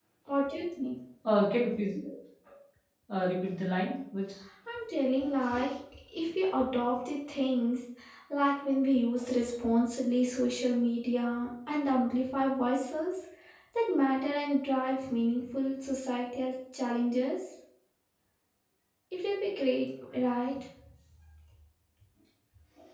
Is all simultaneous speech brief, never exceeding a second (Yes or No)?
Yes